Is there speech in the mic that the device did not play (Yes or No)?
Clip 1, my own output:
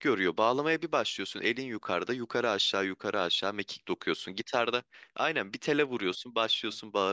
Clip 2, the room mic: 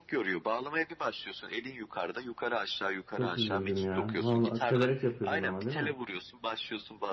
Yes